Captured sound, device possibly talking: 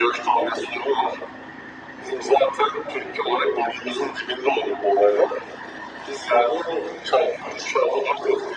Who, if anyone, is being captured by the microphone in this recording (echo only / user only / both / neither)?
echo only